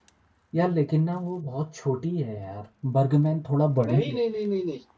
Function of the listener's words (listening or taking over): taking over